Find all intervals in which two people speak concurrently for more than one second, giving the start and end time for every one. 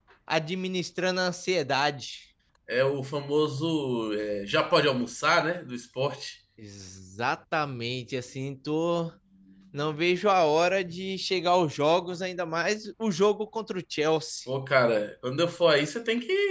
none

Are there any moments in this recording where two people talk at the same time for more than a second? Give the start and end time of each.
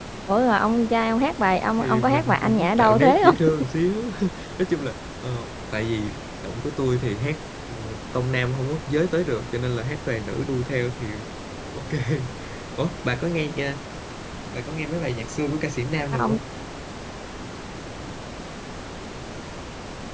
1.7-3.4

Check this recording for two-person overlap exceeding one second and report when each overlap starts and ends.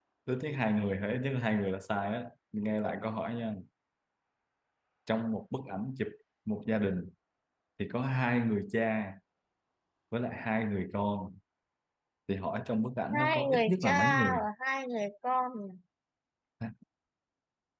13.2-14.4

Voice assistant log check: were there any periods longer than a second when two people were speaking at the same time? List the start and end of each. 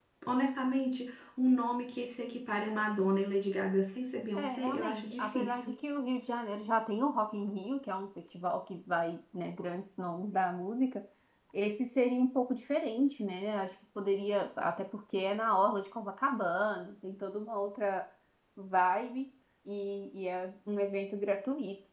4.3-5.8

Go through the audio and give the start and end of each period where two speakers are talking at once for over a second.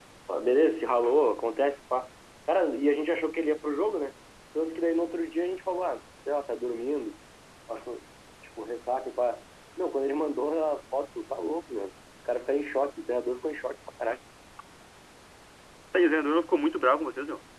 none

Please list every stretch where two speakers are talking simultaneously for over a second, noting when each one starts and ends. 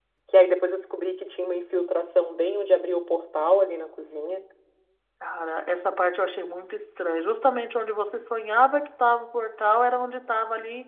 none

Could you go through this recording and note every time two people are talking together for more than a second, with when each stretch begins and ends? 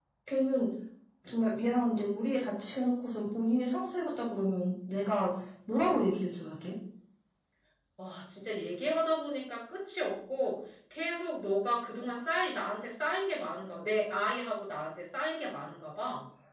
none

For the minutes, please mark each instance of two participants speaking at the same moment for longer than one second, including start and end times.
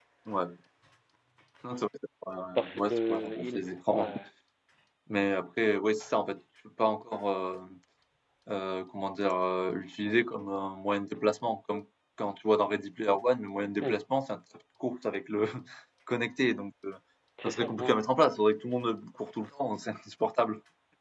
2.5-4.1

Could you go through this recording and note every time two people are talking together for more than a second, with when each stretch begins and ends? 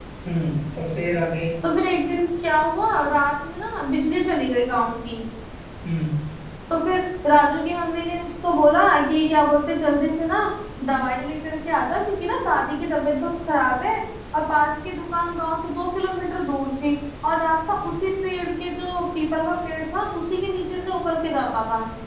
none

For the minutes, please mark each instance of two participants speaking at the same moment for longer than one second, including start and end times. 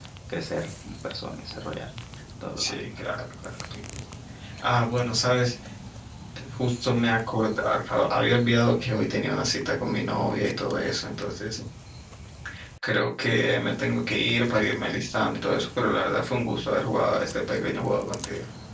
none

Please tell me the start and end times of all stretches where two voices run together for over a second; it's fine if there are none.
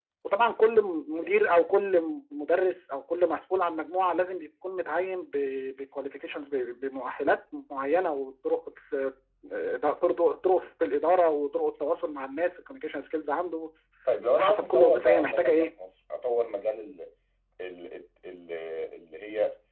14.4-15.7

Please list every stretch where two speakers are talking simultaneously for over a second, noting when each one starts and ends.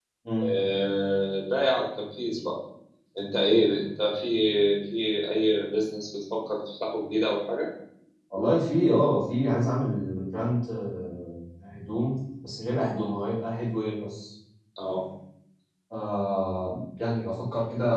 none

